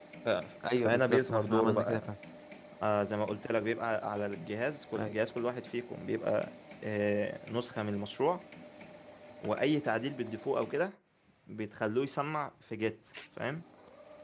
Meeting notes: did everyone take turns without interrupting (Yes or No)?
No